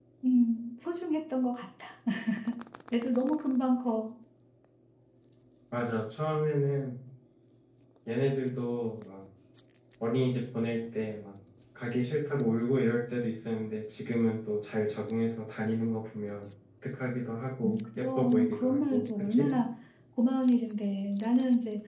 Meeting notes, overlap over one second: present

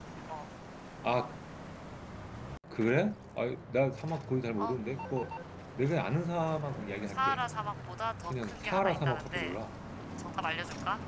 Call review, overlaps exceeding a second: present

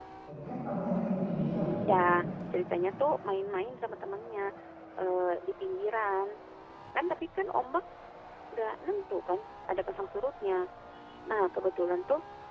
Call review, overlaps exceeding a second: none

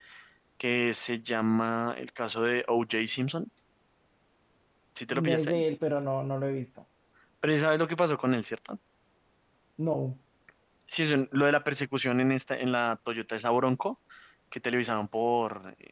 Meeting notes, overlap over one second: none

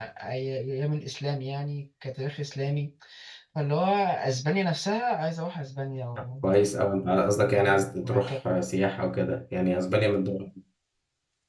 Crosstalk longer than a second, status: none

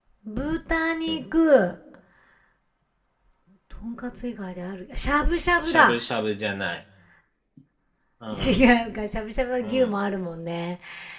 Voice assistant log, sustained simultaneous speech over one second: none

